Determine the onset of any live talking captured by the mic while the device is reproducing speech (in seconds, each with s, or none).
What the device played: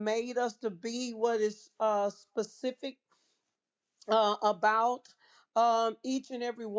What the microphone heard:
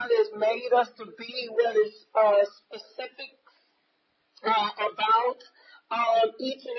none